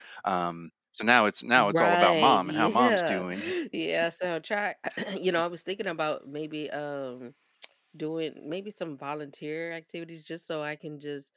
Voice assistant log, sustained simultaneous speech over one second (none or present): present